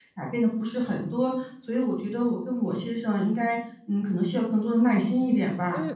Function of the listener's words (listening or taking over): taking over